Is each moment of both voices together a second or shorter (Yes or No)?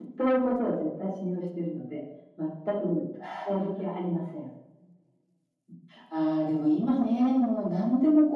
Yes